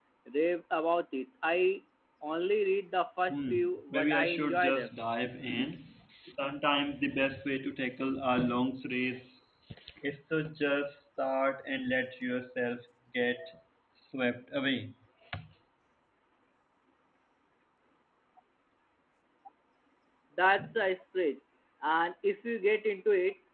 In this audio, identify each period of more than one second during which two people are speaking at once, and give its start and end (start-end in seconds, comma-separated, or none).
3.3-4.9